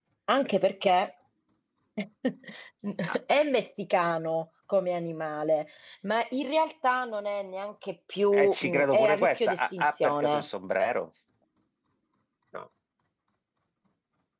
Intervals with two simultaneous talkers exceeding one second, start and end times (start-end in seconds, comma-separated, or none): 8.3-10.4